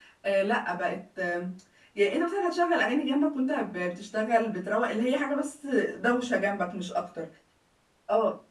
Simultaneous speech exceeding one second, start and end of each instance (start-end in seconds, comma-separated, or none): none